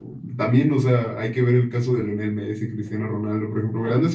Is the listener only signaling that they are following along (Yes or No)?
Yes